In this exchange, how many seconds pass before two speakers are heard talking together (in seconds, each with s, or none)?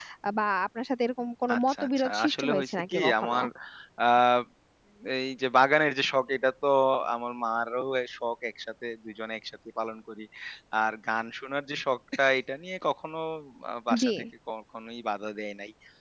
1.5 s